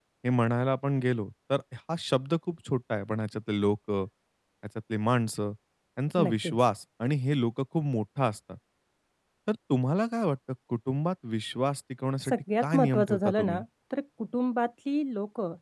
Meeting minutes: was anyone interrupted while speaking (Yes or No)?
Yes